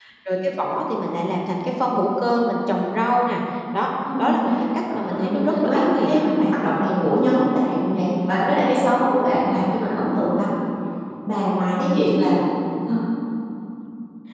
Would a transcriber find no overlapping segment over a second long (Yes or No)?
No